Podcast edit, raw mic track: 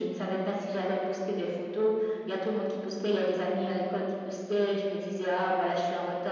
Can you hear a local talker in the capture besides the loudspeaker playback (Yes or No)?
No